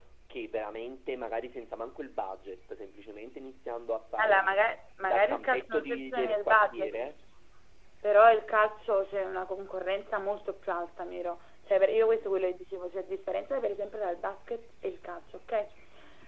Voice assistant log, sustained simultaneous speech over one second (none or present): present